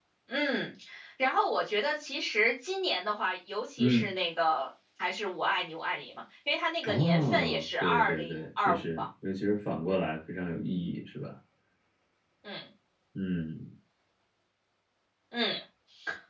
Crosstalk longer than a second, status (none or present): present